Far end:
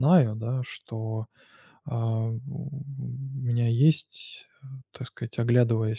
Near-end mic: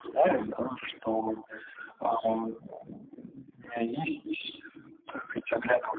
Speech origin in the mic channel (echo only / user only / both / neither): echo only